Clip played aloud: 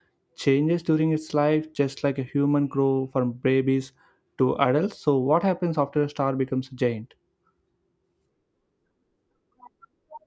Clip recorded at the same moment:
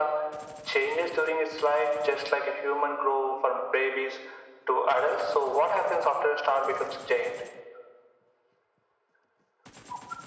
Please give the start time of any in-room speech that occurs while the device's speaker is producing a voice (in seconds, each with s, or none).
none